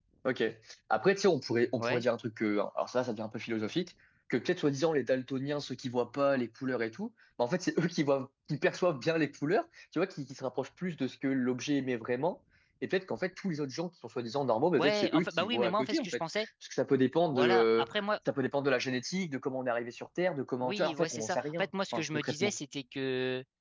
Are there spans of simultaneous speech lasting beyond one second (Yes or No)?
Yes